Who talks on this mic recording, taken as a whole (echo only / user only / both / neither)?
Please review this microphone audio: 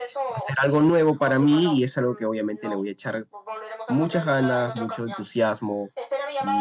both